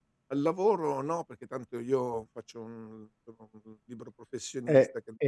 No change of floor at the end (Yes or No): No